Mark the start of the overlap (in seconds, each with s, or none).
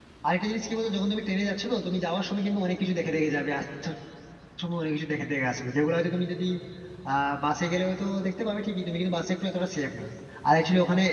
none